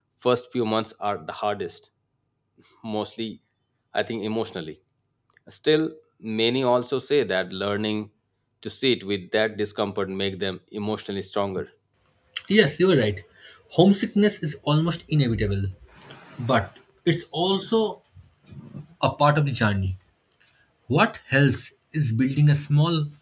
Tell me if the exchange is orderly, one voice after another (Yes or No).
Yes